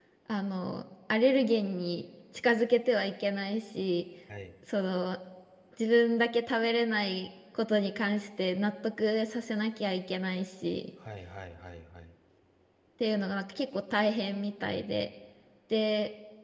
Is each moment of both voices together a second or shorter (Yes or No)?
Yes